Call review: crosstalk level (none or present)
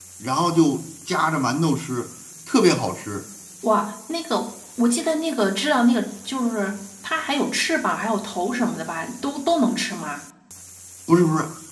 none